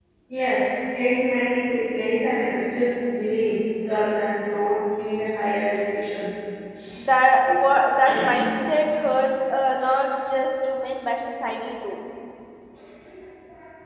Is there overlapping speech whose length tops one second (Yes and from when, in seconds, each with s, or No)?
No